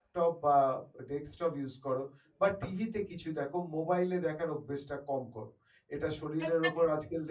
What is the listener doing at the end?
listening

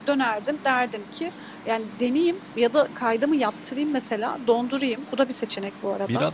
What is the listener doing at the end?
taking over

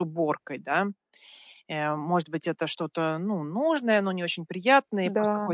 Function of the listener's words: listening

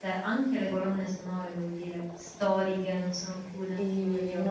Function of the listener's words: taking over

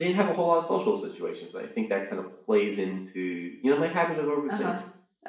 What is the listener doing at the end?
taking over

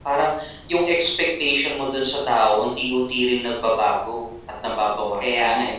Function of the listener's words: taking over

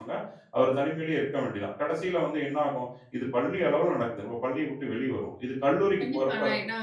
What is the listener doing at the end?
taking over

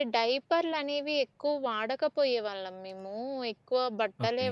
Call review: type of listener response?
listening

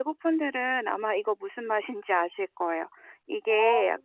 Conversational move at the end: listening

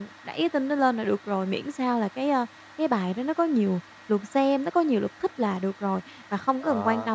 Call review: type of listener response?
listening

